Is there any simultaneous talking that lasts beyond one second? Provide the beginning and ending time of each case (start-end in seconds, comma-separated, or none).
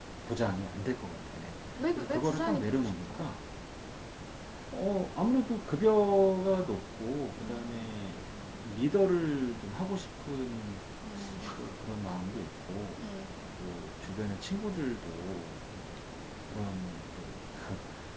2.0-3.3